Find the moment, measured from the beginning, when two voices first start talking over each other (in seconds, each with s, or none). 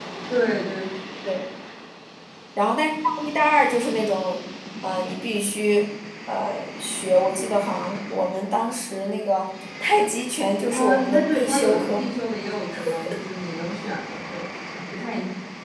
10.7 s